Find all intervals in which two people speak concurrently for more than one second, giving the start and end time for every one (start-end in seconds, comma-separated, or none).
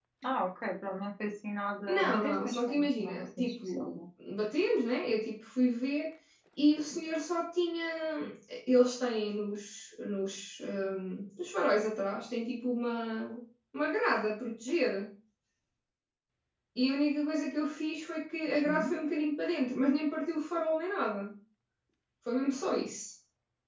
1.9-4.0